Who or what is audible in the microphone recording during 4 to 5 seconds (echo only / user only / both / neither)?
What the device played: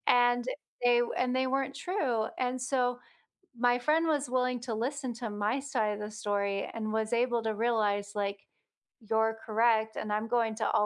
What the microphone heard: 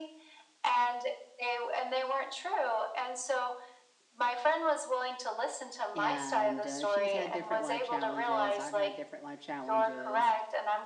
echo only